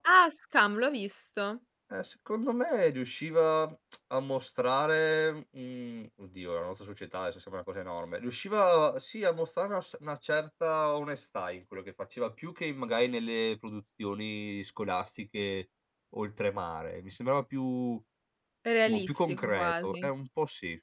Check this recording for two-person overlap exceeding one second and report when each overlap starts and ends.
18.9-20.1

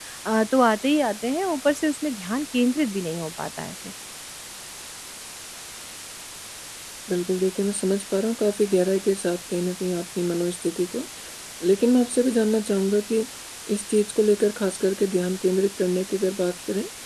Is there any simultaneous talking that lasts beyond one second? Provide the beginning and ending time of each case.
none

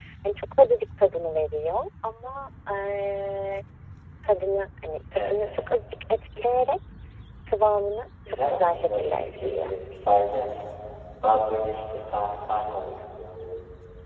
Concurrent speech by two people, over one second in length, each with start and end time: 8.5-9.7

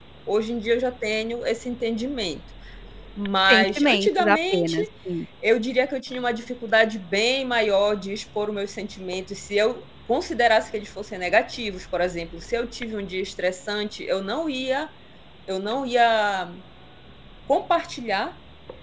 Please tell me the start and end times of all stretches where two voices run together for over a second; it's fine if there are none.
3.5-4.8

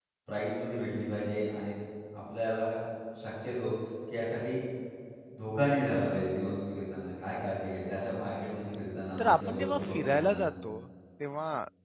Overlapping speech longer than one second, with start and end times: 9.2-10.4

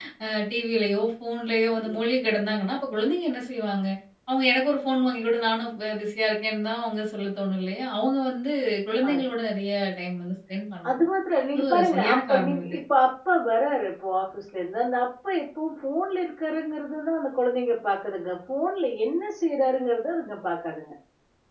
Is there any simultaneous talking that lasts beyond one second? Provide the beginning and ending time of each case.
11.5-12.8

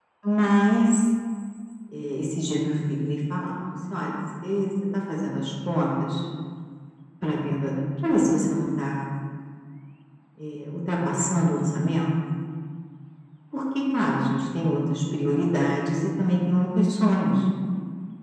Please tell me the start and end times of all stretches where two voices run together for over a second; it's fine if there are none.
none

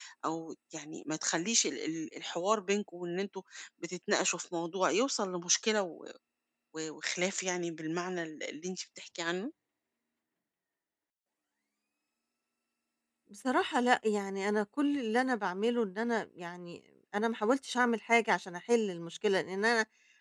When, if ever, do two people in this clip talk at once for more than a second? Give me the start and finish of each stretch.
none

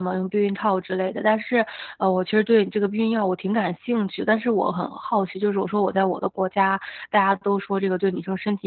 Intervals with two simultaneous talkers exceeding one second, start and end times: none

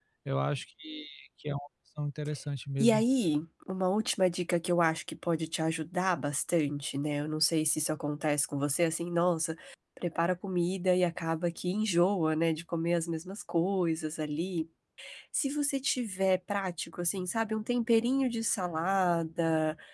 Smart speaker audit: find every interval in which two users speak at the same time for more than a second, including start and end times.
none

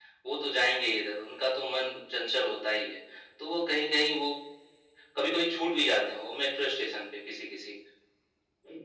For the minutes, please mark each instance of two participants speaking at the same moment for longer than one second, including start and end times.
none

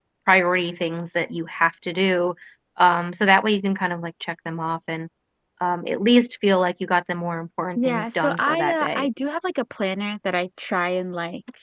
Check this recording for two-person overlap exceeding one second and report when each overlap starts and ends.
7.8-9.1

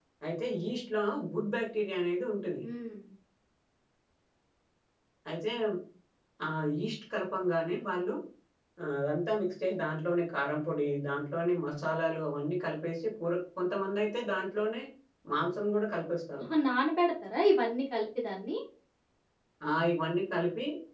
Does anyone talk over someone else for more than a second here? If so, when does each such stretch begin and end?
none

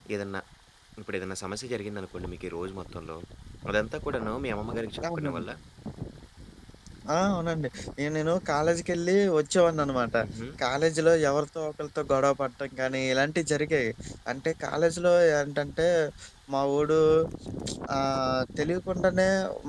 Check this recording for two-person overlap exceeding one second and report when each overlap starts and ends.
none

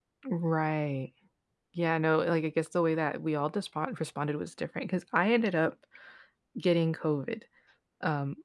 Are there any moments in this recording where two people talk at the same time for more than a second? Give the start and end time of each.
none

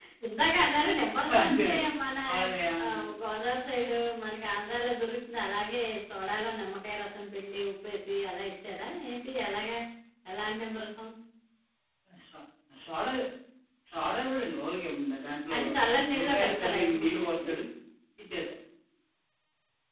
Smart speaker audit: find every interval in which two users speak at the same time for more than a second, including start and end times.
16.1-17.5

